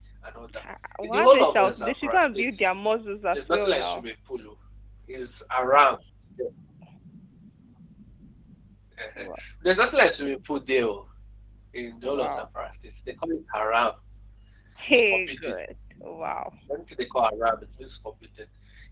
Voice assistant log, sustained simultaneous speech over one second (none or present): present